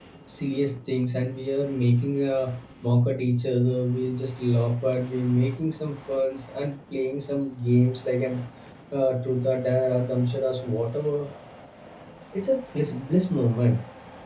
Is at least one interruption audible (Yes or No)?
No